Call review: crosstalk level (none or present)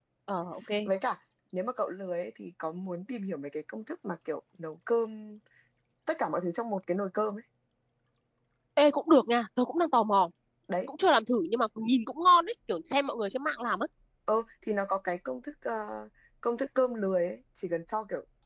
none